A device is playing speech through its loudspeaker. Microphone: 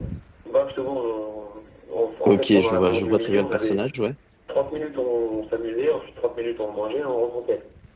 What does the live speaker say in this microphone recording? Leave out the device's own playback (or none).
Ok, je vois, je vois très bien le personnage, ouais.